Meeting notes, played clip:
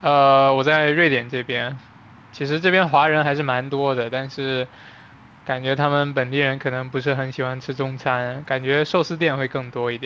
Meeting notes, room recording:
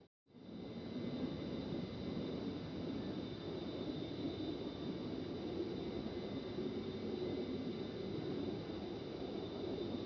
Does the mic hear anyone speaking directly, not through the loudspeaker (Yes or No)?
No